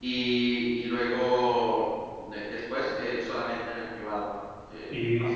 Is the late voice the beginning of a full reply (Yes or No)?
Yes